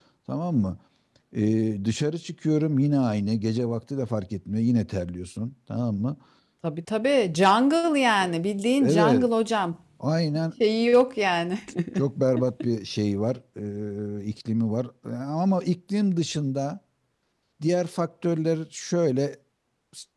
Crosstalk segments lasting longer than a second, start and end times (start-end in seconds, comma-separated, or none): none